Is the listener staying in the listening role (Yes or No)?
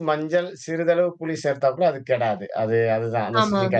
Yes